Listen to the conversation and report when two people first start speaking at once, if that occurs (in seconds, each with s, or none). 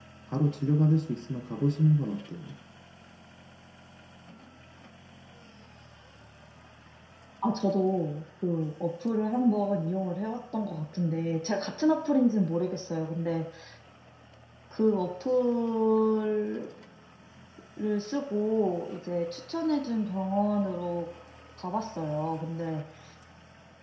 none